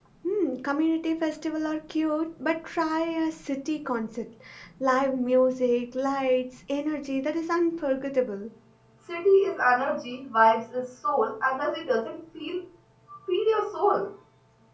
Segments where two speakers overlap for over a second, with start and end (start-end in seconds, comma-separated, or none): none